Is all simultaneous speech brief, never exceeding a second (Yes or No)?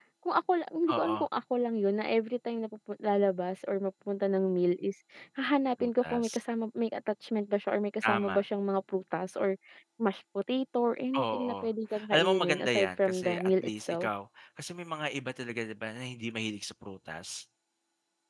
No